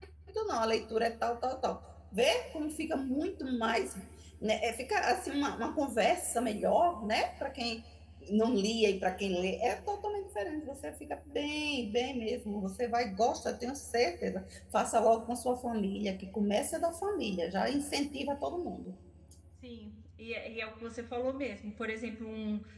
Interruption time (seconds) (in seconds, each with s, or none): none